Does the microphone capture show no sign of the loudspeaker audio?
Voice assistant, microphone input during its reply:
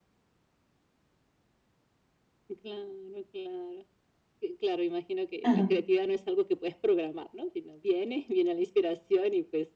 No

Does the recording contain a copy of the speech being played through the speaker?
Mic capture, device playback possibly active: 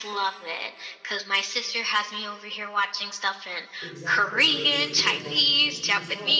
Yes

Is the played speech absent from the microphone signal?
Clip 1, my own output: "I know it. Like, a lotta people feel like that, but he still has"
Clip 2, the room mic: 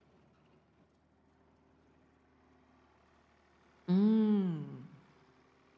Yes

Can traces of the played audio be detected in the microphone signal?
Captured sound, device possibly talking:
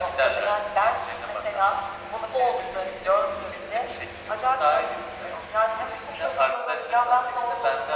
Yes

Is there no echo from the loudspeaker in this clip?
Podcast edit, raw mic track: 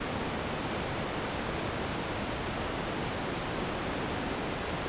Yes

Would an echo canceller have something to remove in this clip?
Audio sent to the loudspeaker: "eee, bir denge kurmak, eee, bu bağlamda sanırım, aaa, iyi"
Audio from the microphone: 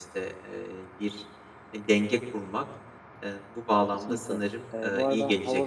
Yes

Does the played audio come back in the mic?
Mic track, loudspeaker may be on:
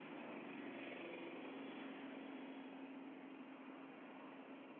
No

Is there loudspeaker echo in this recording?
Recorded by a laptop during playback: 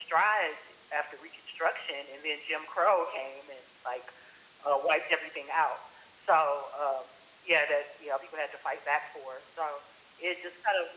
Yes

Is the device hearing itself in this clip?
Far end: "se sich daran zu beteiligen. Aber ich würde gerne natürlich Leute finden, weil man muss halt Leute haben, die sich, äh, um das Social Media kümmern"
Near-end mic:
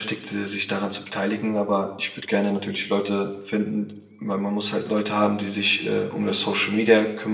Yes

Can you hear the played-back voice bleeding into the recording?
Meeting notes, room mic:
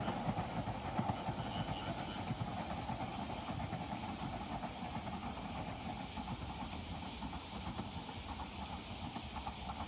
No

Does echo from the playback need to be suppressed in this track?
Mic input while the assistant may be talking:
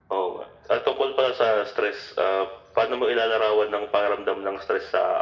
Yes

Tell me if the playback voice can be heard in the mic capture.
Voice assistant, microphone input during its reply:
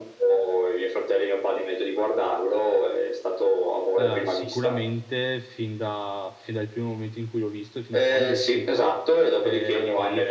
Yes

